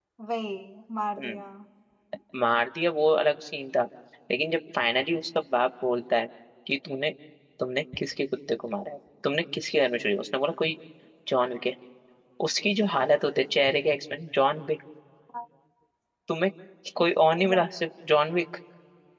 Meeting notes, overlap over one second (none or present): none